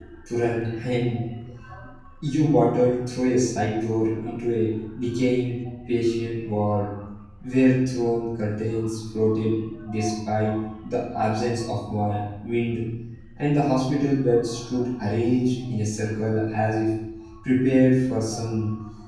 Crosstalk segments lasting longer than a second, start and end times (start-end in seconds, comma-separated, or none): none